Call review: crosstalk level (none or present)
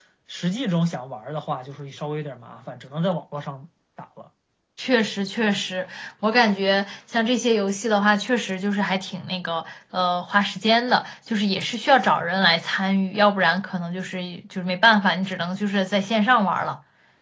none